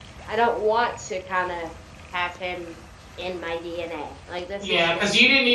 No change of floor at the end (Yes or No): No